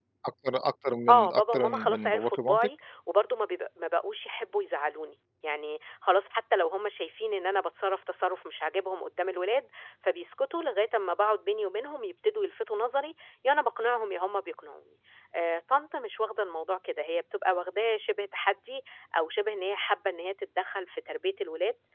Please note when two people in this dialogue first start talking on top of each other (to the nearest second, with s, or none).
1 s